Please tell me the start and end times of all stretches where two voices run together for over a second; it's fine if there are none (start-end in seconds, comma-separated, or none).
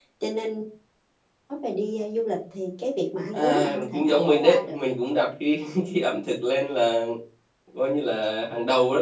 3.3-4.8